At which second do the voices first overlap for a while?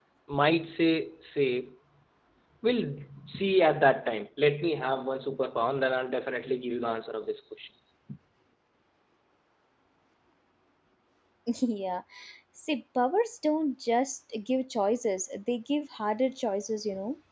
none

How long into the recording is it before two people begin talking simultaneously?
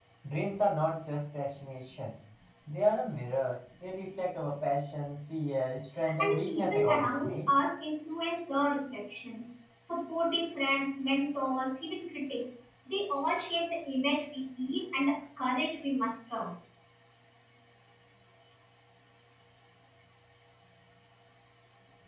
6 s

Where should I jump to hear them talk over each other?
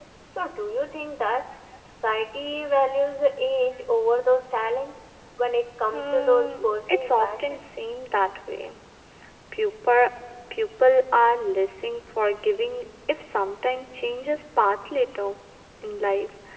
6 s

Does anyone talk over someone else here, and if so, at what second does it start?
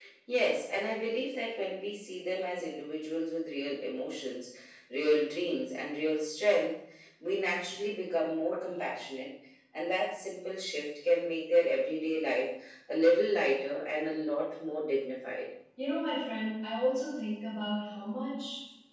none

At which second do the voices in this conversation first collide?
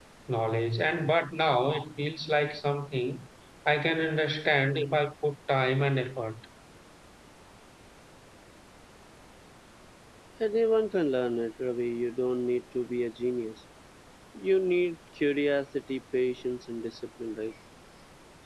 none

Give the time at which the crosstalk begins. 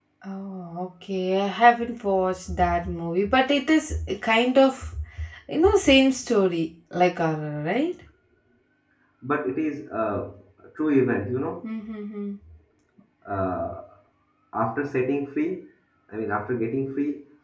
none

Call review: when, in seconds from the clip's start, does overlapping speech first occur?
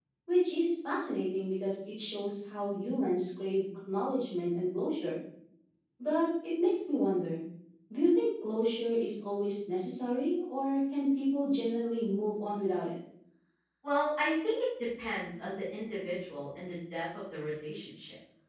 none

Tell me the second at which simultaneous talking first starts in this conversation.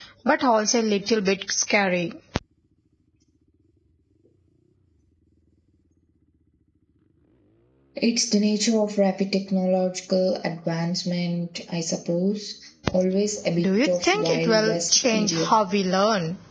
14 s

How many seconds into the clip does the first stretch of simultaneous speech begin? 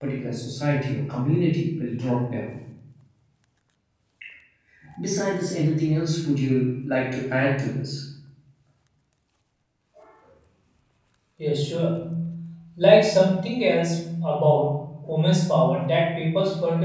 none

